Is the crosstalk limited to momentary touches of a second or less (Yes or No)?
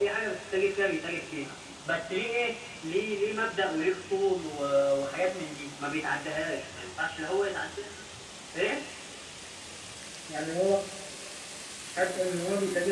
Yes